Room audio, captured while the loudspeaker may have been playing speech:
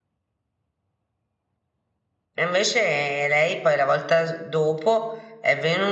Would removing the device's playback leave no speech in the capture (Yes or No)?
No